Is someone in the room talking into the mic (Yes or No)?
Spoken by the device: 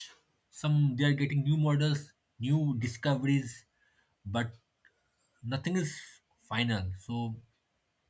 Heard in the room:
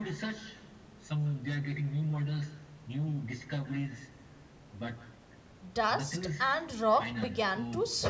Yes